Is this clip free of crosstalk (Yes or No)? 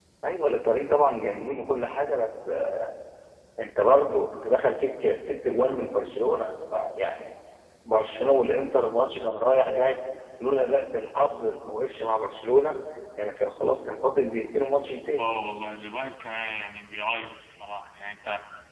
Yes